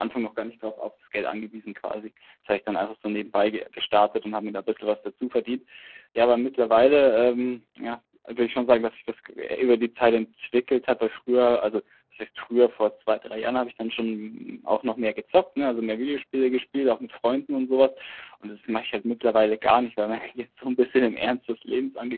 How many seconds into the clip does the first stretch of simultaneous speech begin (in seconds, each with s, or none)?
none